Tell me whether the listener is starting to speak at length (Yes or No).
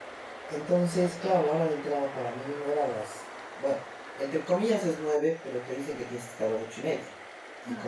No